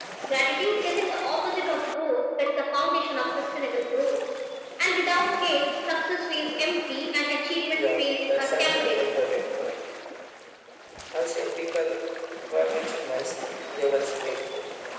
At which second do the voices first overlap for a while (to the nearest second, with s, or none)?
8 s